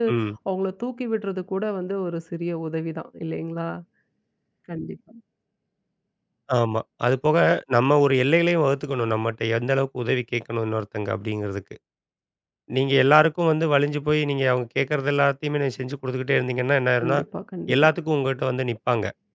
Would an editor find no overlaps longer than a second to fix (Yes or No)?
Yes